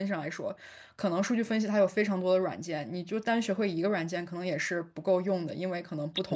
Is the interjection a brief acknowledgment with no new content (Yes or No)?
Yes